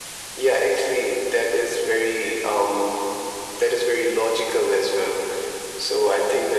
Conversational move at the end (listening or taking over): listening